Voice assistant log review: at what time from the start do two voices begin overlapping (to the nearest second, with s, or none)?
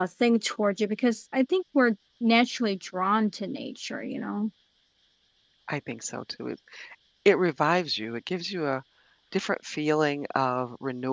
none